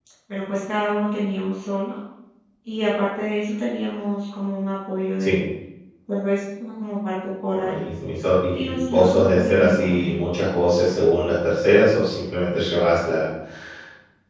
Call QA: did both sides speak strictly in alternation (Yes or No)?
No